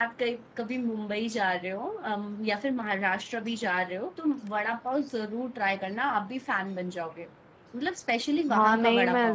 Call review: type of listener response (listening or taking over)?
taking over